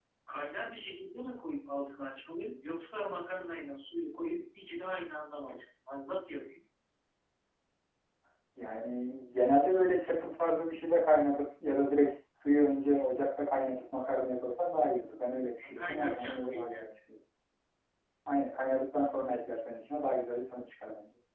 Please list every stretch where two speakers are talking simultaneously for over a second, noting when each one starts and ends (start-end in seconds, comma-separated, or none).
15.6-16.9